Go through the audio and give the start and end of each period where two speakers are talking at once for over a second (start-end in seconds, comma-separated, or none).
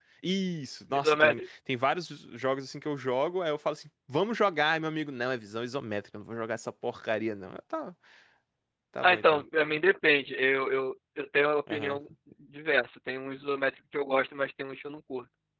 none